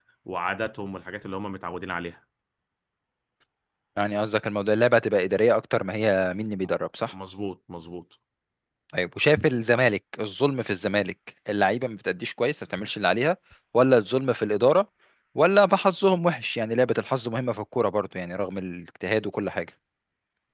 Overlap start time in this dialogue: none

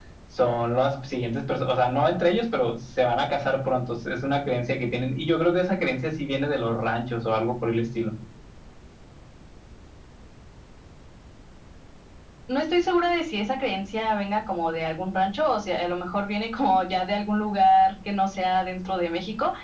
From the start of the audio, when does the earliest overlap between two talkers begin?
none

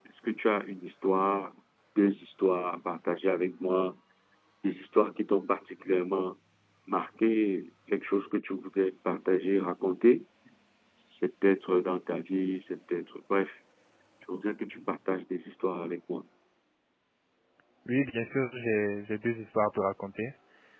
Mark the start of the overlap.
none

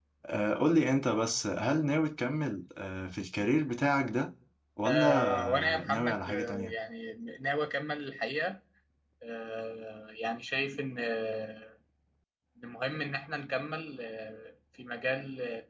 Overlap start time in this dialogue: 4.8 s

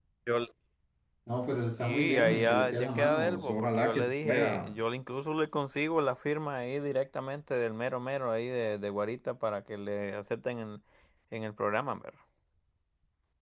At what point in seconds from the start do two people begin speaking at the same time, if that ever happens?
1.8 s

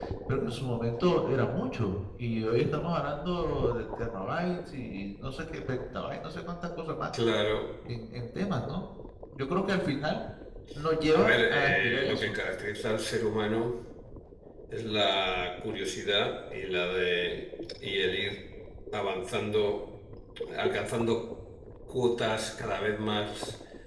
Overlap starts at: 11.1 s

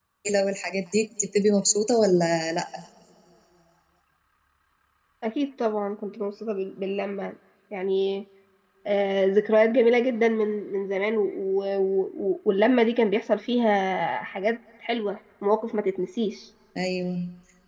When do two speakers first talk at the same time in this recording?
none

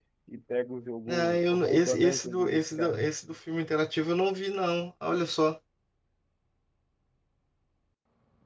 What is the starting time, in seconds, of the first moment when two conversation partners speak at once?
1.1 s

